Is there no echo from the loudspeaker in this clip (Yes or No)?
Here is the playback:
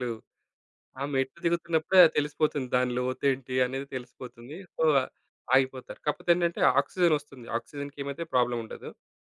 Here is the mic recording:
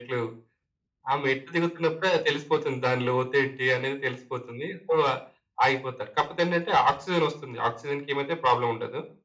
No